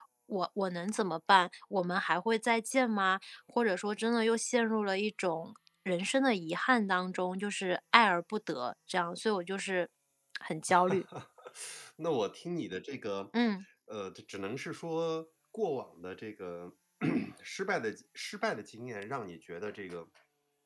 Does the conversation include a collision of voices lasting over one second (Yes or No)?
No